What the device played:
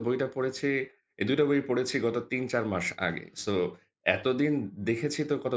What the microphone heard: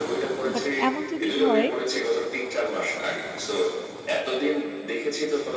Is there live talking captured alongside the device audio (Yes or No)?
Yes